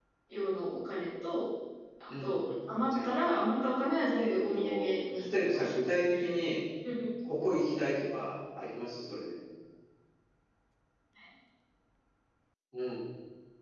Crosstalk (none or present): present